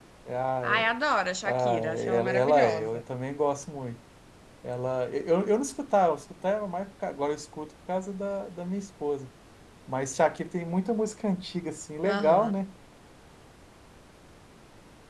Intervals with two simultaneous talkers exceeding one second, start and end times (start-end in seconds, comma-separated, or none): 1.4-3.0